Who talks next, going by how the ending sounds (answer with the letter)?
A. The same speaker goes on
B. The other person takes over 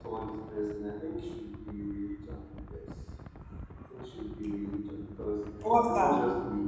A